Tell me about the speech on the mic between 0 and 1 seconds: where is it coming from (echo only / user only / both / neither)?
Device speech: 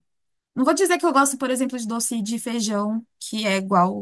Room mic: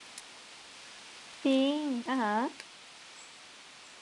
neither